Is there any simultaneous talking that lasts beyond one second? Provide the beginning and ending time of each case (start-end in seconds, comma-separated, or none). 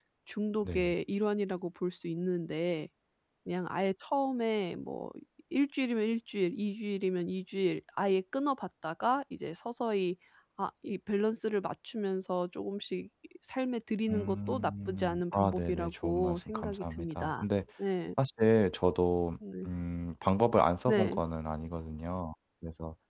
14.1-17.4